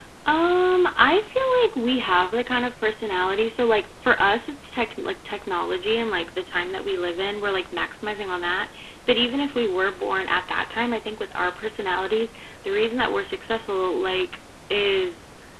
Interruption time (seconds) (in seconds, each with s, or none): none